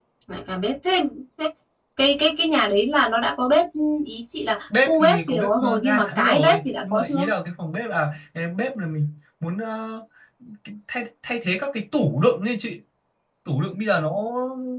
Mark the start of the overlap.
4.9 s

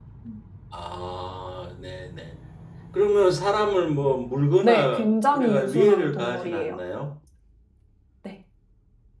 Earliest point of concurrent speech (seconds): 4.6 s

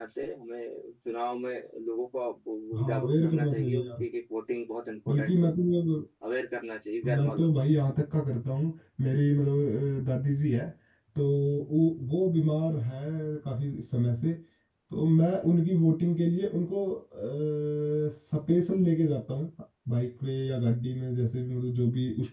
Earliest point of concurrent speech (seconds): 2.8 s

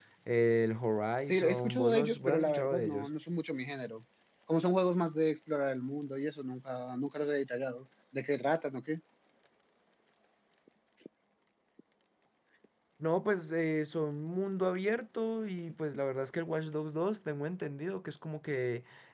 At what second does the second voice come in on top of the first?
1.3 s

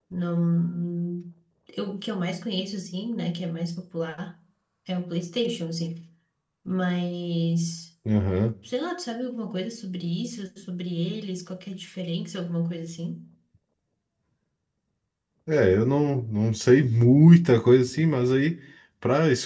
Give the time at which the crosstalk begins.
none

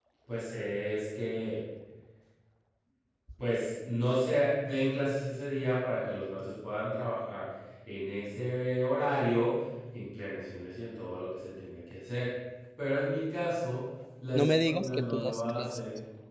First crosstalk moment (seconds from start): 14.3 s

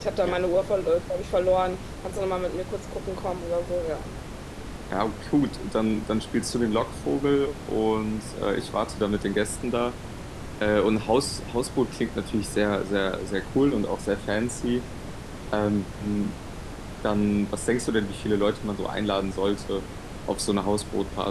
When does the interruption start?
none

